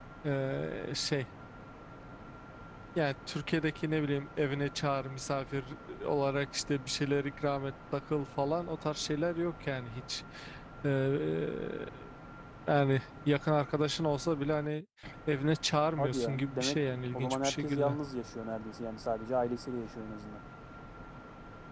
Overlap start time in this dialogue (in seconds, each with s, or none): 16.0 s